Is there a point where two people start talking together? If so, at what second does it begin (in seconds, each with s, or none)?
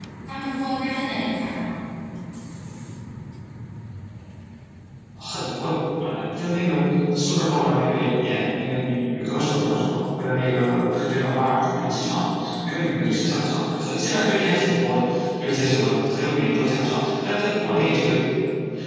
none